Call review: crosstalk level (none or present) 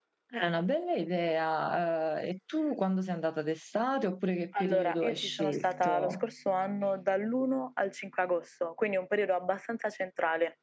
present